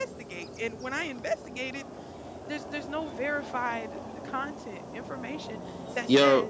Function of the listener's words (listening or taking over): listening